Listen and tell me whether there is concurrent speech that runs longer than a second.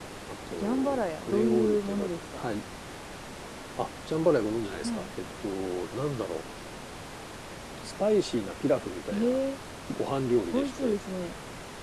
Yes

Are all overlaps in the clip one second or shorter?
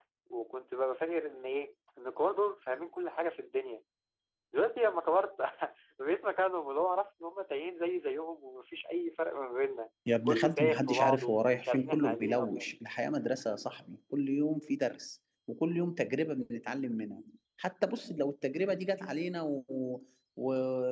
No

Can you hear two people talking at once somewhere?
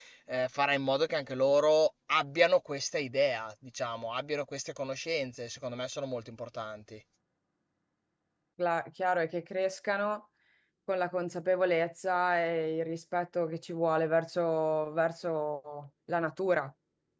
No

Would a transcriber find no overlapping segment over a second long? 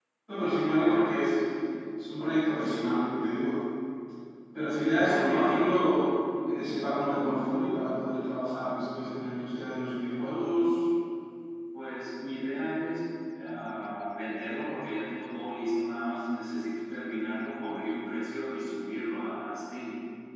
No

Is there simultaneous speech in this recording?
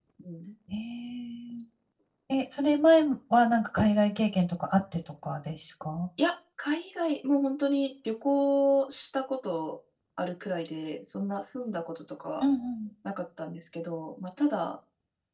No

